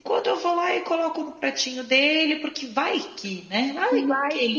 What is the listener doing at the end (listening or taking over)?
taking over